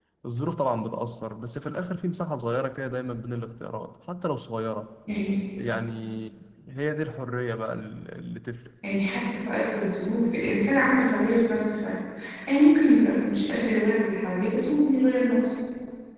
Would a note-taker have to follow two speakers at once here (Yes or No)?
No